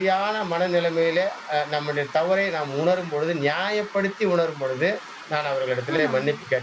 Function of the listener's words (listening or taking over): listening